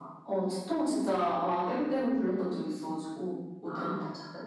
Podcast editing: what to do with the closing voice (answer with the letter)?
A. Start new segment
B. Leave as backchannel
A